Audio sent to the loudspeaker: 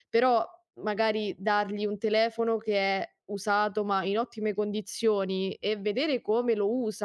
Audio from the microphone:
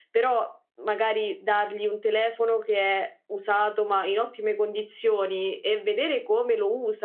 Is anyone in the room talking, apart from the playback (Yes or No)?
No